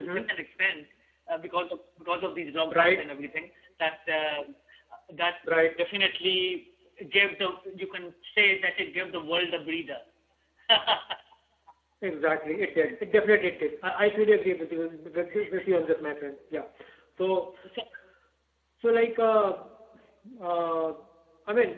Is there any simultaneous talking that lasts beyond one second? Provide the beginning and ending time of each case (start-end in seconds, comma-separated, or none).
none